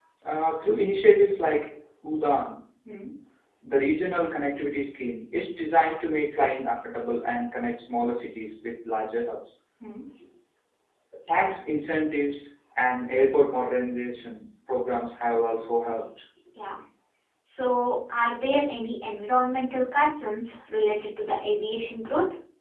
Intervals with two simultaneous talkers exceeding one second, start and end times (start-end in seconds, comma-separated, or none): none